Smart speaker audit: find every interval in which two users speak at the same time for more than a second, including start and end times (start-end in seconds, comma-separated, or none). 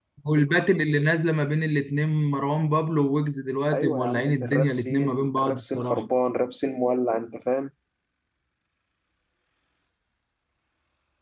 3.7-6.0